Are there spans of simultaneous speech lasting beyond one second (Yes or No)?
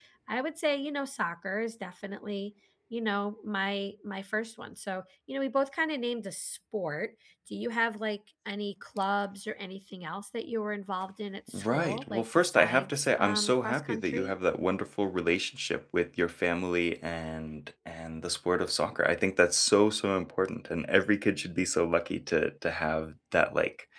Yes